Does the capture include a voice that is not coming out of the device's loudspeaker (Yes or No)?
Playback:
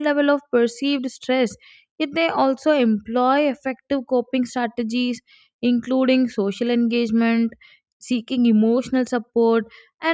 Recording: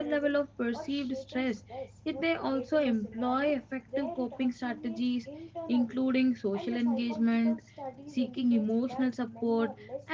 Yes